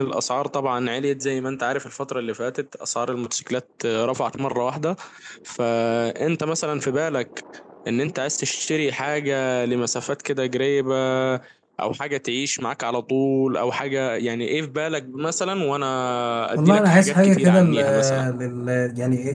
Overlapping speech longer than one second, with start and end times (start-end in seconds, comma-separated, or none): 16.6-18.2